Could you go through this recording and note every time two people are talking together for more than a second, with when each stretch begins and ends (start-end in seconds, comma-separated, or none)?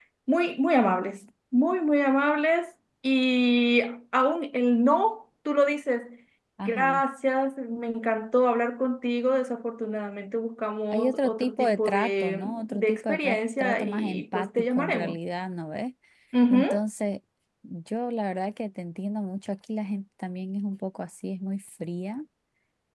10.9-15.2